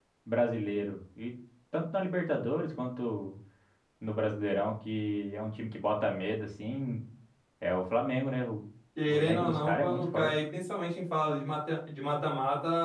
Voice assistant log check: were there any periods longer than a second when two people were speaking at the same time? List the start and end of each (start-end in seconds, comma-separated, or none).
9.1-10.3